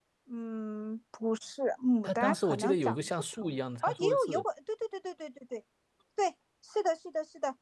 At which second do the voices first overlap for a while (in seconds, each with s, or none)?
2.0 s